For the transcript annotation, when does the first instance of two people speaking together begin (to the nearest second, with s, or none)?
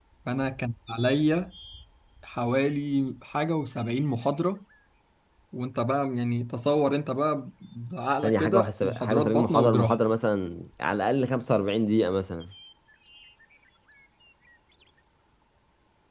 8 s